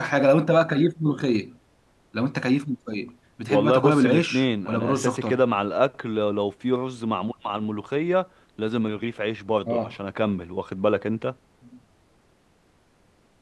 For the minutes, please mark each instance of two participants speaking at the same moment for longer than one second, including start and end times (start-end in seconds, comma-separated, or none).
3.5-5.4